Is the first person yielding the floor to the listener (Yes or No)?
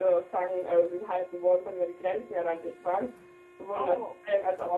No